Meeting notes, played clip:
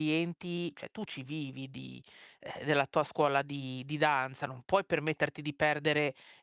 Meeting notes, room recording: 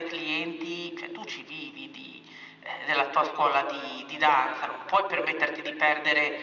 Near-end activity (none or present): none